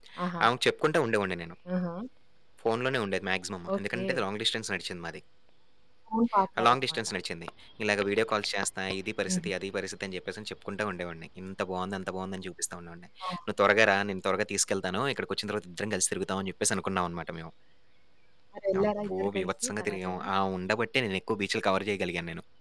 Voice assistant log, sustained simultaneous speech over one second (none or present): present